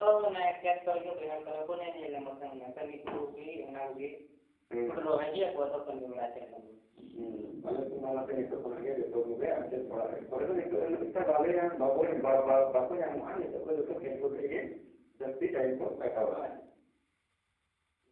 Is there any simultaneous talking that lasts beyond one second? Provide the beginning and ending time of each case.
none

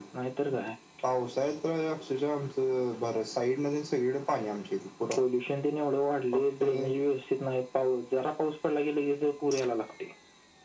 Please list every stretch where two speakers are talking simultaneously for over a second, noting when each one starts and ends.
none

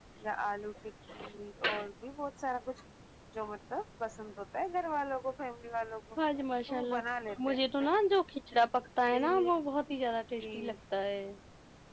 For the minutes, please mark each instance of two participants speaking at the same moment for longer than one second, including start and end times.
none

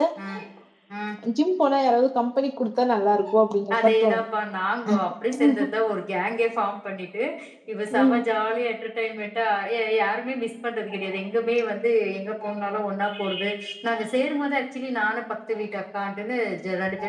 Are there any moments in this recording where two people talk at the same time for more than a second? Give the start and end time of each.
none

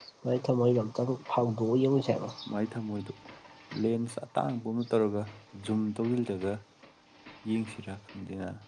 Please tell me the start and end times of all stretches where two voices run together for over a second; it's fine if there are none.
none

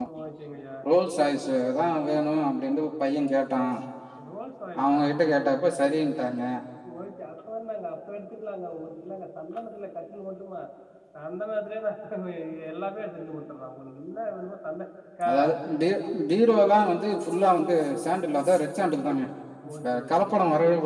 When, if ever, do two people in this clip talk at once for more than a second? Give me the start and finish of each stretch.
none

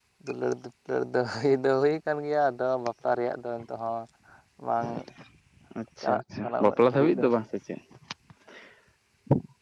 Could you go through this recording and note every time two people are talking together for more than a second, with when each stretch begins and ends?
6.0-7.2

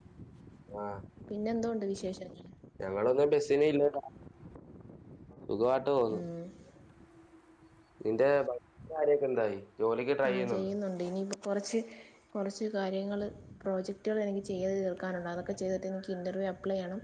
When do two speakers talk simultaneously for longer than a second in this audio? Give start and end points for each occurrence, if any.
none

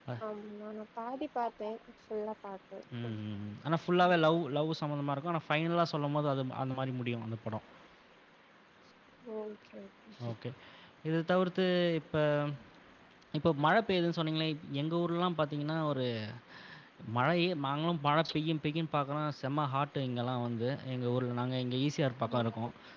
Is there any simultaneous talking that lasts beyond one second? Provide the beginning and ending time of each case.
none

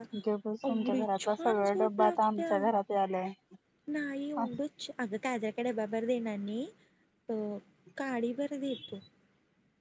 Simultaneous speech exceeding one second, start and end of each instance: 0.7-2.5

